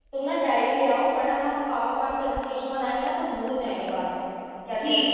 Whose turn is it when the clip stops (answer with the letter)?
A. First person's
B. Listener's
B